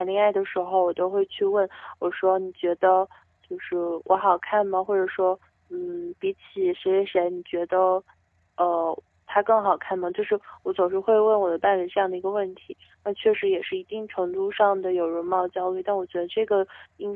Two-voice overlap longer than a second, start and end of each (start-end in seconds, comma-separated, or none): none